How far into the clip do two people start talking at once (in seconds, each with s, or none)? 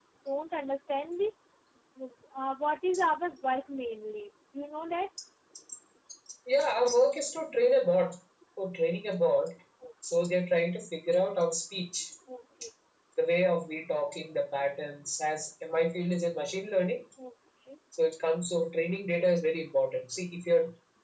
none